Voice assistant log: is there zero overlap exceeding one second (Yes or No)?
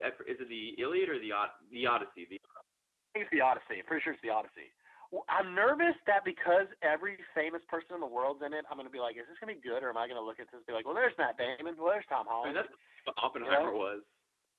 Yes